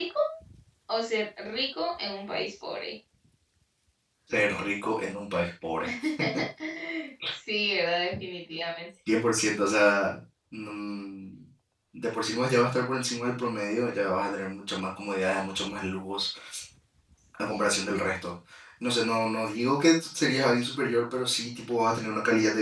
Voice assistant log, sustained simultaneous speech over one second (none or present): none